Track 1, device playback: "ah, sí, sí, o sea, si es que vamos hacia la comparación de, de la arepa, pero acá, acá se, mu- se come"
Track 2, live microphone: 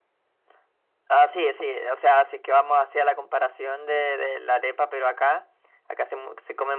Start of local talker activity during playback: none

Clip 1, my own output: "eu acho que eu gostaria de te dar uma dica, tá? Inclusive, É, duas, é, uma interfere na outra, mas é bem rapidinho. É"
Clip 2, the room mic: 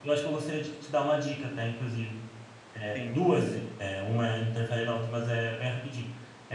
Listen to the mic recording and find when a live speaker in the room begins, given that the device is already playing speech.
2.9 s

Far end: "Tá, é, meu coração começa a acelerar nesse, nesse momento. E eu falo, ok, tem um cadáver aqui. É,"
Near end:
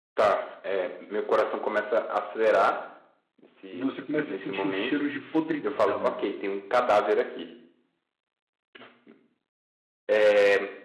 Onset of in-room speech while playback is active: 3.7 s

